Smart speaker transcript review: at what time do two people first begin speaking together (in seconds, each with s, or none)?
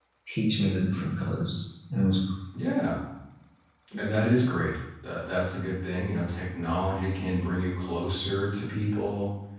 none